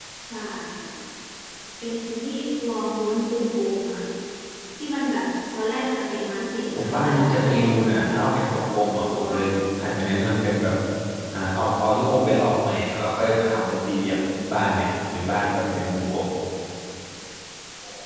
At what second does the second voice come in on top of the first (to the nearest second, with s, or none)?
7 s